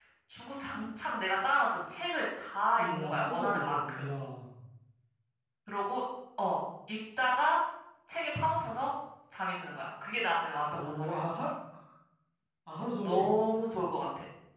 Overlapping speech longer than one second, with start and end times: 2.8-4.0

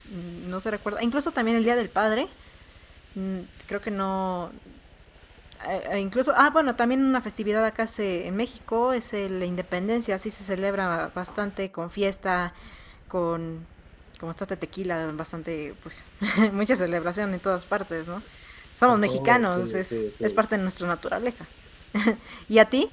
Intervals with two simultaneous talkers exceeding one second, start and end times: 18.9-20.4

